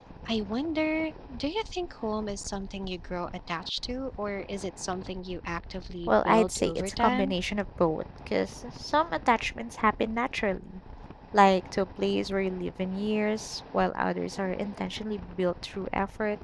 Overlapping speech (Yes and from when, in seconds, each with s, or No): Yes, from 6.1 s